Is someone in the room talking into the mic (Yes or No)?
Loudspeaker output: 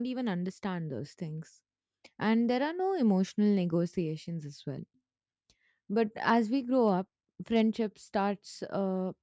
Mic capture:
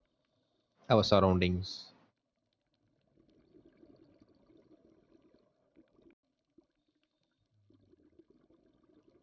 Yes